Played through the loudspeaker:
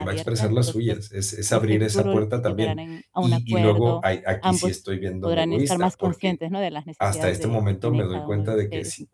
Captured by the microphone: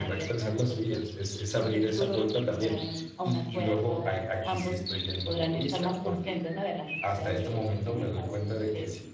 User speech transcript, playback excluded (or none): none